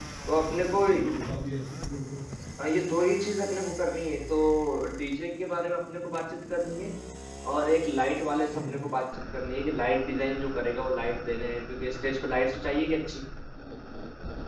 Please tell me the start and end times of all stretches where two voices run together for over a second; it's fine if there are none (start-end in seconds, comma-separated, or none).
none